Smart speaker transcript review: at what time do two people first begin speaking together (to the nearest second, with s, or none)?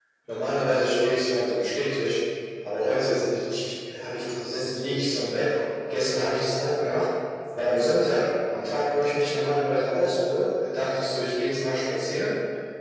none